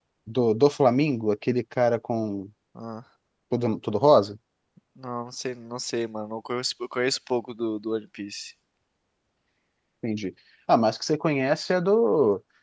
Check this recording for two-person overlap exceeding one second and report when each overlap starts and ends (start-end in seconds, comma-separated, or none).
none